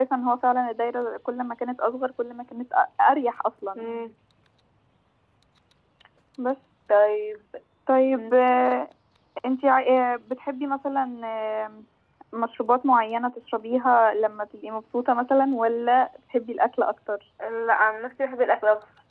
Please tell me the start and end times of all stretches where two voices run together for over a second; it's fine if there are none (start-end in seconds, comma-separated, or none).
none